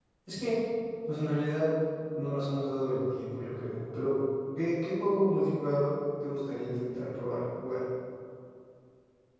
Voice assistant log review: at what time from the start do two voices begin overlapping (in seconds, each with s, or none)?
none